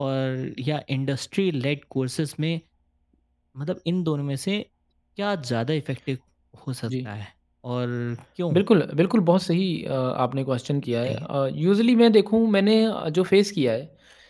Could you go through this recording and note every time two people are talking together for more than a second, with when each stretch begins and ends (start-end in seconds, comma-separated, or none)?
none